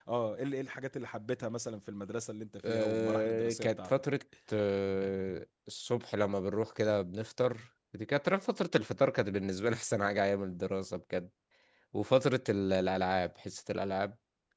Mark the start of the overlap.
2.6 s

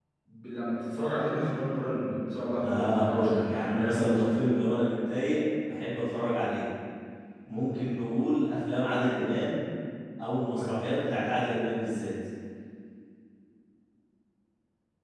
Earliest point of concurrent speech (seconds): 2.6 s

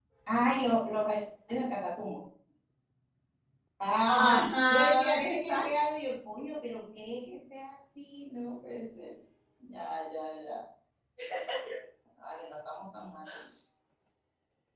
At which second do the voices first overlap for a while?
4.1 s

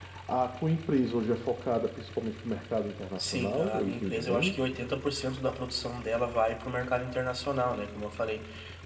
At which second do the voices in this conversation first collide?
3.2 s

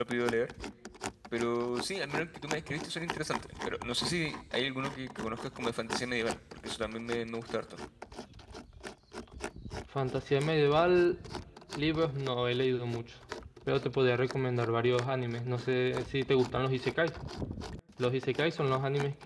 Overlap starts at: none

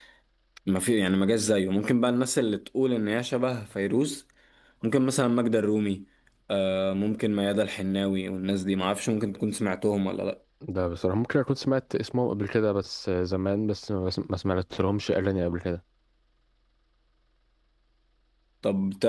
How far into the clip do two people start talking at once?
none

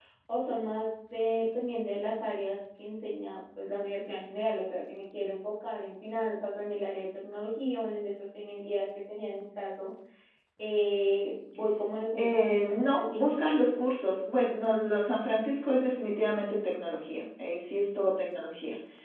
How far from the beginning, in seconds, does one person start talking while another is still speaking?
12.2 s

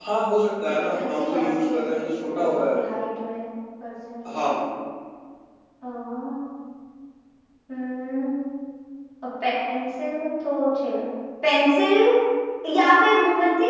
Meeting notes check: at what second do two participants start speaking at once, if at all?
0.8 s

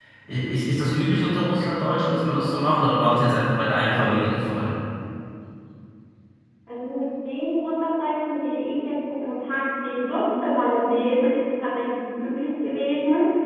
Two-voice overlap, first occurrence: none

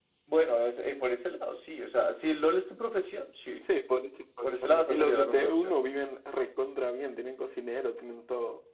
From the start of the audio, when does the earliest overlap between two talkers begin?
4.4 s

